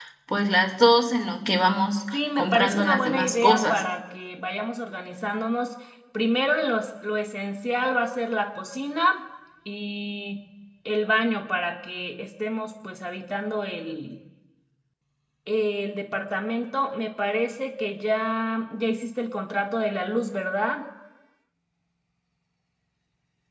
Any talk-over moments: Yes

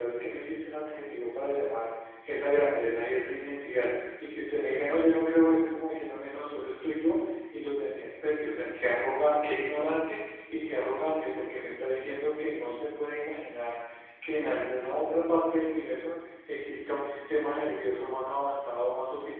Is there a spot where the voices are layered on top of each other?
No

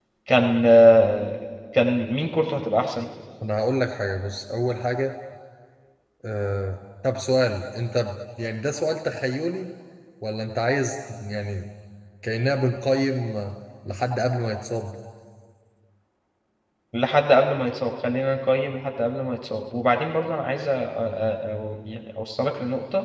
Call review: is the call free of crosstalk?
Yes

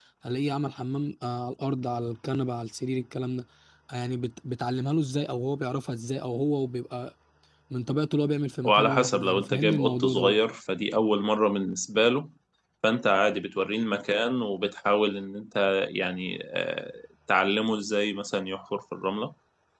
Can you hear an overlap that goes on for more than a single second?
Yes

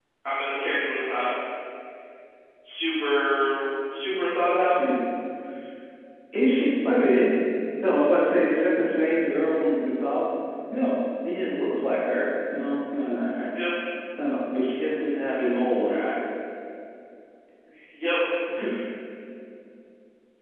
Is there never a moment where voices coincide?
Yes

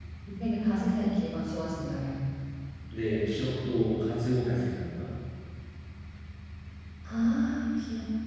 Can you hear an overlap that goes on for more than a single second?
No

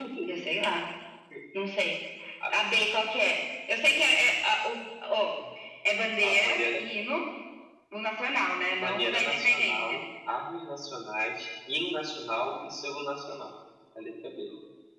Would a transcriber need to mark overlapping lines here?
Yes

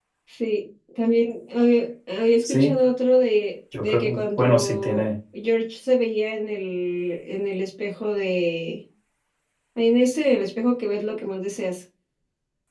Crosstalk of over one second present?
Yes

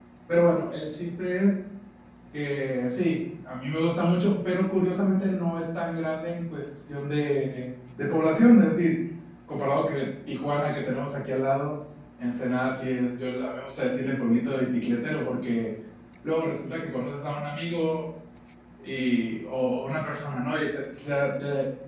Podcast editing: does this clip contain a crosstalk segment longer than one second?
No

